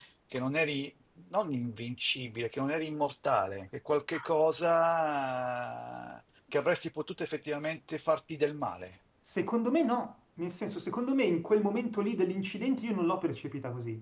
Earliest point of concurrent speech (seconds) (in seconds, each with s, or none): none